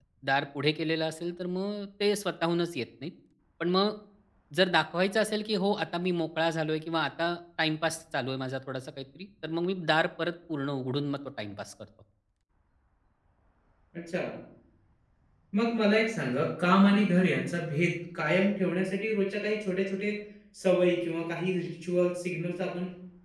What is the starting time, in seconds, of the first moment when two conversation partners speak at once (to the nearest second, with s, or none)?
none